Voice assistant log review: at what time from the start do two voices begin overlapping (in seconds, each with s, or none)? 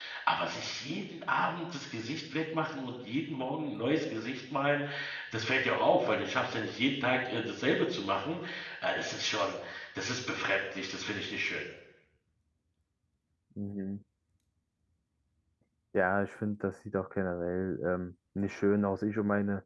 none